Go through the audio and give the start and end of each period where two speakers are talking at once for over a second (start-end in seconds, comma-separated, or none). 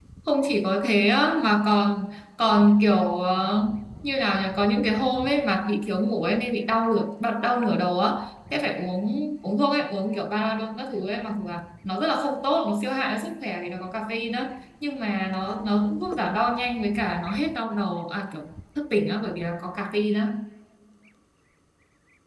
none